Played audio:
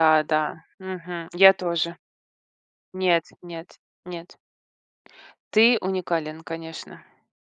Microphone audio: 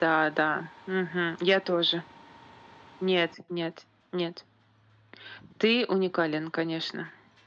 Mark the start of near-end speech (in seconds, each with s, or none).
none